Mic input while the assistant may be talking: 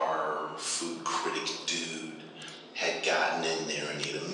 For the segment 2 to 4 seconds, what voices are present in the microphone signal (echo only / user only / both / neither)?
echo only